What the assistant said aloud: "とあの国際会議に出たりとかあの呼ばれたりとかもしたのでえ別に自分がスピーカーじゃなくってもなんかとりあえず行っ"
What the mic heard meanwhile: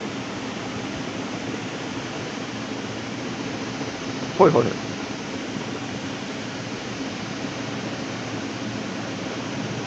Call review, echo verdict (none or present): none